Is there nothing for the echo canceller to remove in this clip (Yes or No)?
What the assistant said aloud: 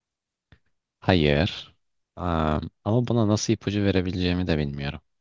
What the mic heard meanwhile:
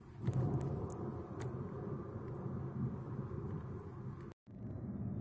Yes